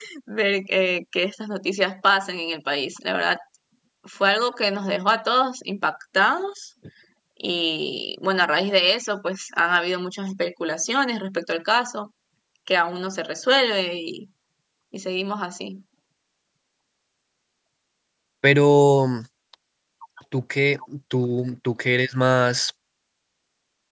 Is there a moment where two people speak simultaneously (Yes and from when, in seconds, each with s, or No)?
No